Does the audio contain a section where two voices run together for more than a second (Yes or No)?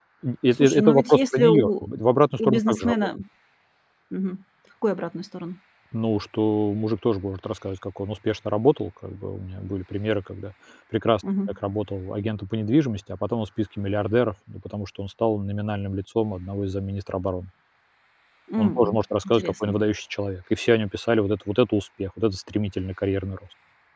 Yes